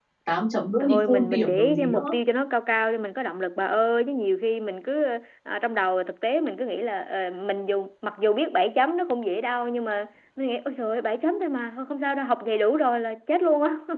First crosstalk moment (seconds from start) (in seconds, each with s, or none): 0.8 s